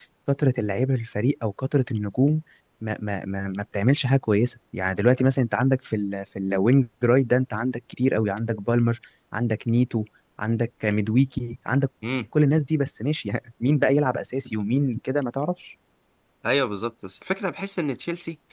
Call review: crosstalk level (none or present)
none